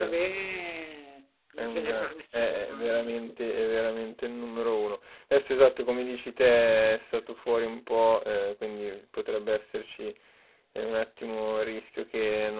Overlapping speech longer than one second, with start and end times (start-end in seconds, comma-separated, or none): 1.6-2.9